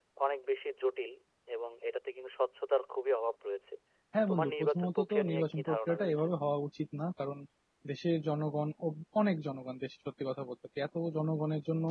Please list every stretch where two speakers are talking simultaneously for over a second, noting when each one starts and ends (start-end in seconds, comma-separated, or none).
4.3-6.2